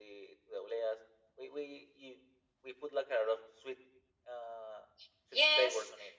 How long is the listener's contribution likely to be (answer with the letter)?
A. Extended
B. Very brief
A